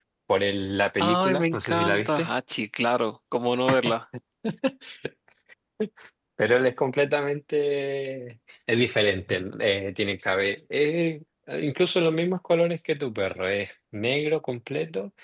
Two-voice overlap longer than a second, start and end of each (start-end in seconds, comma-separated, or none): 1.0-2.3